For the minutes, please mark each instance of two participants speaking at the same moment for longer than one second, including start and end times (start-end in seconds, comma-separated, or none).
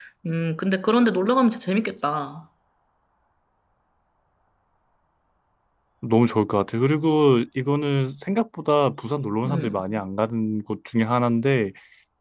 none